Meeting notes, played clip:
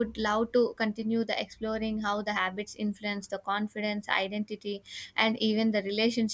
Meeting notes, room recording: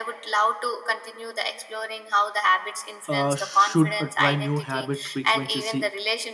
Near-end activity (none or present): present